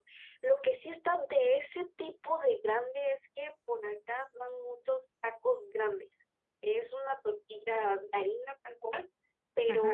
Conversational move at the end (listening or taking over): listening